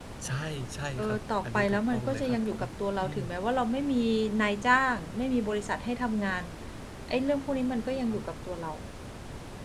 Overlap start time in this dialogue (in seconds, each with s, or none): 1.0 s